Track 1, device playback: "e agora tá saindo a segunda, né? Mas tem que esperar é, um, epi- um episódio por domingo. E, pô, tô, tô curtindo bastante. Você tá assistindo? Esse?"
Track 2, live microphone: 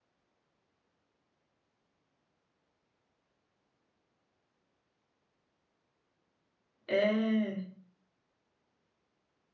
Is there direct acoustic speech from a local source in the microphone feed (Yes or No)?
Yes